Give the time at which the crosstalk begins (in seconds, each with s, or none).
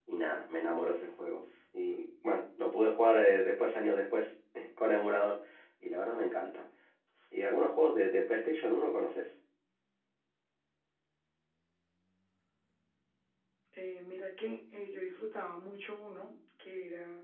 none